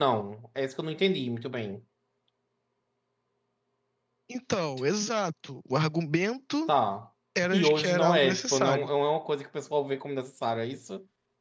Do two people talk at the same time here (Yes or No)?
Yes